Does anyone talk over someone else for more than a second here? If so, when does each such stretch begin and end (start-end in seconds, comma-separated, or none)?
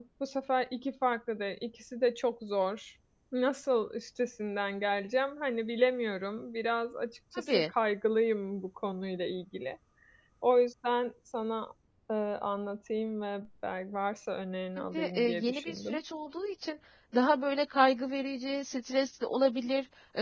14.8-16.0